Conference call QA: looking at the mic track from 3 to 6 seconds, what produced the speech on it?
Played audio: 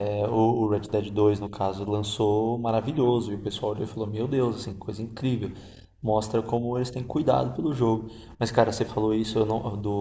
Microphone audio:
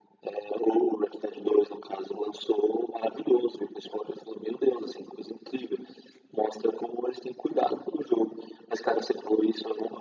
echo only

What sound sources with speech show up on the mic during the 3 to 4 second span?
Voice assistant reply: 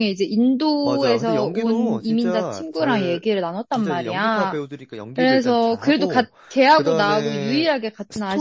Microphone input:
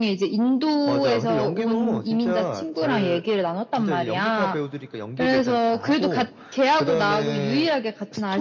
echo only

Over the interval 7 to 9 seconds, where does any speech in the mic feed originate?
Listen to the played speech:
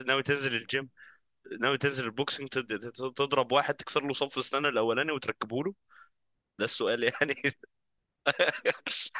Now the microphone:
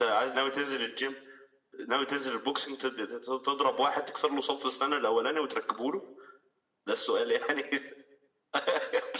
echo only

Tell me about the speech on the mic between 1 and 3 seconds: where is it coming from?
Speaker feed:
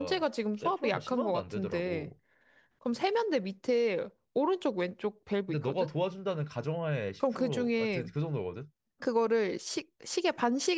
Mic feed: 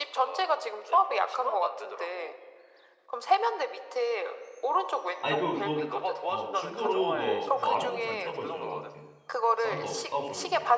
echo only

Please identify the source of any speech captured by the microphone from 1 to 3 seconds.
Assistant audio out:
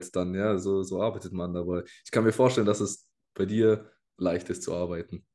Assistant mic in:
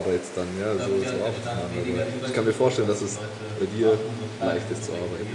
both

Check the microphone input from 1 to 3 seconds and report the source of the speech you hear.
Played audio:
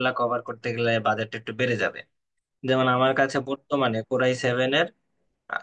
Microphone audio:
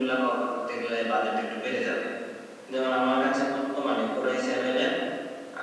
echo only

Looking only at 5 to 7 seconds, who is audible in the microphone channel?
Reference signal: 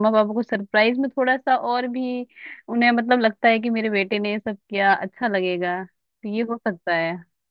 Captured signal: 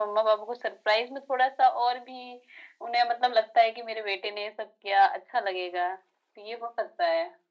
echo only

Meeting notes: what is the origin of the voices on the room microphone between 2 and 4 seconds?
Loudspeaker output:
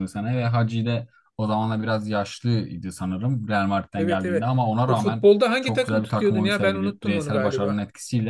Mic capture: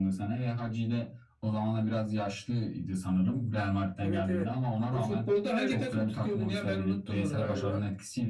echo only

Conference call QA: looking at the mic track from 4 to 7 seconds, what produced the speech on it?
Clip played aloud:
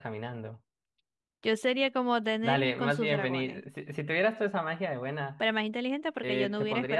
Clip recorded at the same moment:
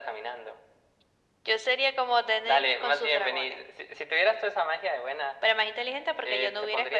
echo only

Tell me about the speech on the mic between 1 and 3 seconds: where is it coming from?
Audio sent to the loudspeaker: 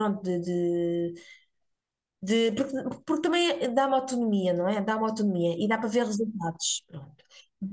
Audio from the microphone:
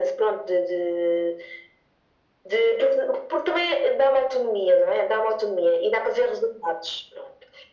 echo only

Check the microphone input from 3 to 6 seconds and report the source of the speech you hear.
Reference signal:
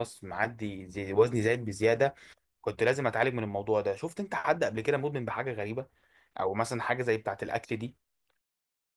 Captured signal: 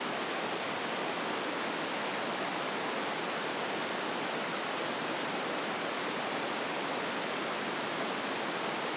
neither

